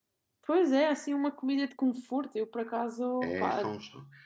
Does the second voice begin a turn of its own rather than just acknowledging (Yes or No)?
Yes